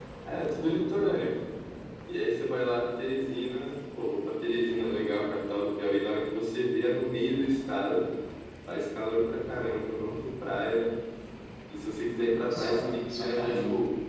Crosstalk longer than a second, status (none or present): present